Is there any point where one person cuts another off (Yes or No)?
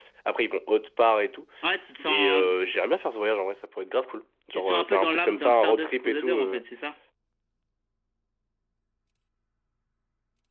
Yes